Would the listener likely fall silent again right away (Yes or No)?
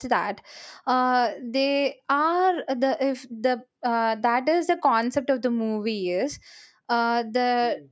Yes